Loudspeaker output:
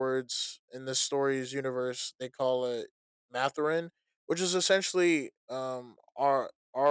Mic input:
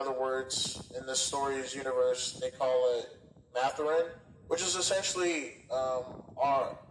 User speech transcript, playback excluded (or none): none